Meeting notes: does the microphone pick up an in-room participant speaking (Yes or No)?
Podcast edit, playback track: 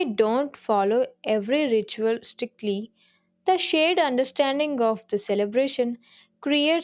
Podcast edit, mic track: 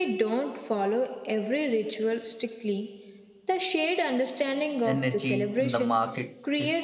Yes